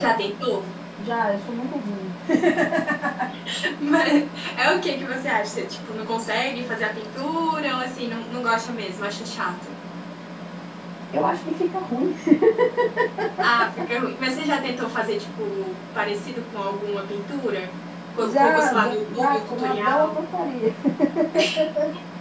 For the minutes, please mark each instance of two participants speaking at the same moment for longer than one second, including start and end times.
18.2-20.2

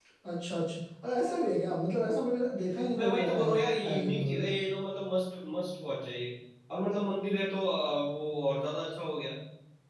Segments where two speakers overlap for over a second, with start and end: 2.9-4.5

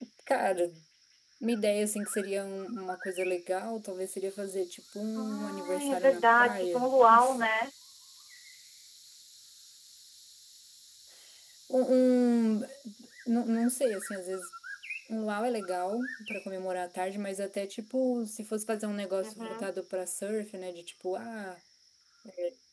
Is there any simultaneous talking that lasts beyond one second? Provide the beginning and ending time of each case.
5.2-6.9

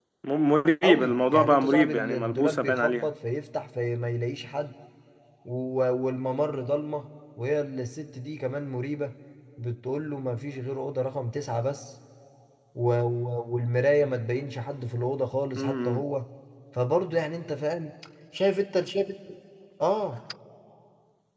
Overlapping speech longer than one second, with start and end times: 0.8-3.1

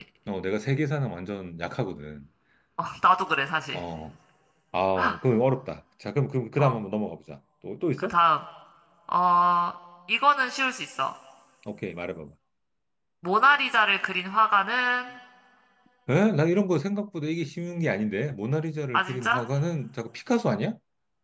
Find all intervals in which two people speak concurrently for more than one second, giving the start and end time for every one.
none

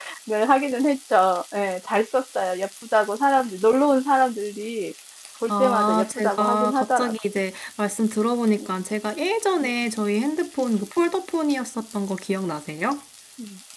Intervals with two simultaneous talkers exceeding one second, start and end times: 5.5-7.2

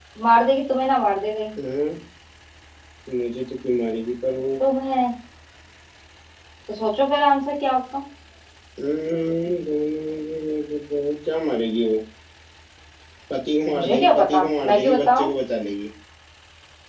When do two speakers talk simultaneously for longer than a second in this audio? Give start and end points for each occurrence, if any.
13.7-15.3

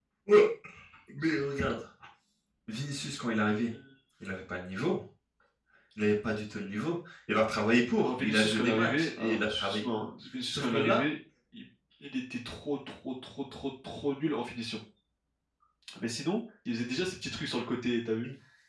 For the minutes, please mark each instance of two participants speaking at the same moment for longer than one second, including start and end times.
8.0-9.8

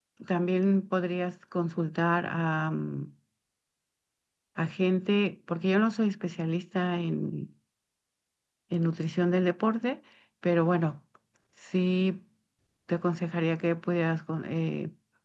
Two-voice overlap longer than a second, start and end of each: none

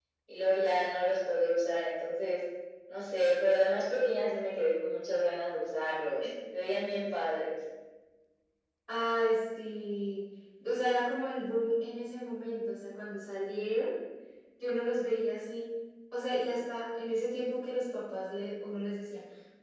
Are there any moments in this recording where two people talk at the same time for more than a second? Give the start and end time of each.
none

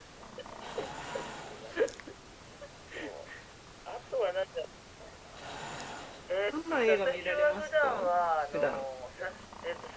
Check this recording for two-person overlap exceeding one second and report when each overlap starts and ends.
6.5-8.1

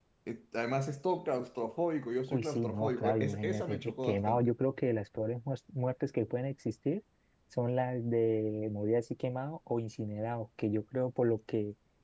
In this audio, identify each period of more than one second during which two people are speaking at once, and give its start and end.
2.3-4.5

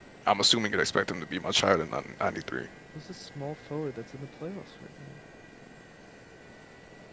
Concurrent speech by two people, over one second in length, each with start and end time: none

